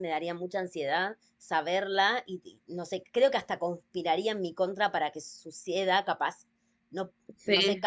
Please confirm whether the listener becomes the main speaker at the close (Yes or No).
No